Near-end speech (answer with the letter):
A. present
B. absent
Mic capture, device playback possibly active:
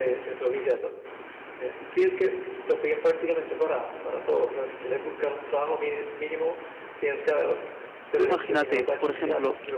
A